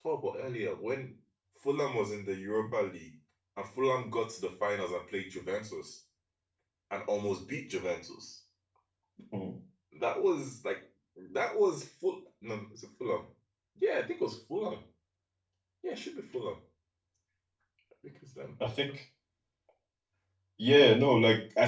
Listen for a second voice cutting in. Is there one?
No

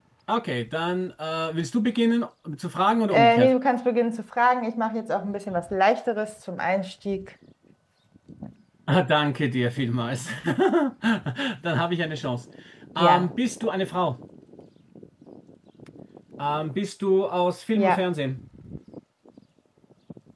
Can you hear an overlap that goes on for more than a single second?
No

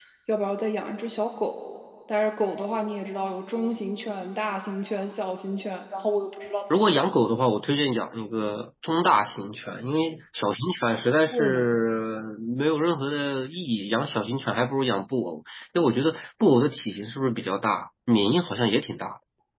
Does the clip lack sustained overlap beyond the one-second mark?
Yes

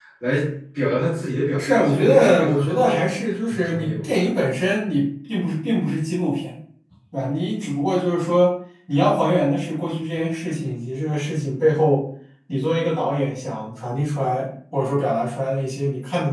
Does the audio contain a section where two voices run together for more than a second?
Yes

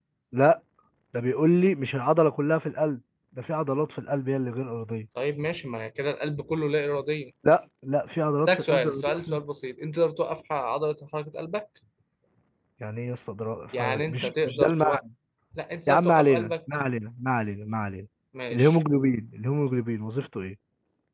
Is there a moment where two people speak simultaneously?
Yes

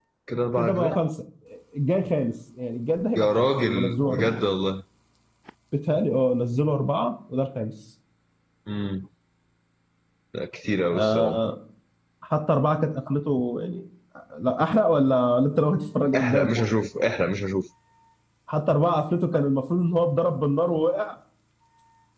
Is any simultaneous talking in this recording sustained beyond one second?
Yes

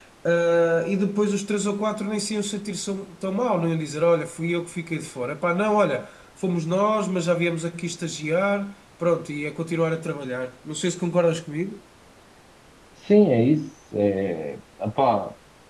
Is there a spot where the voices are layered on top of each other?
No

